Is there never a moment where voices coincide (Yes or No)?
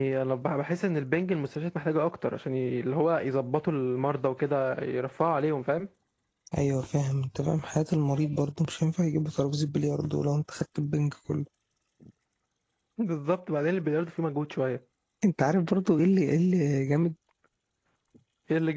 Yes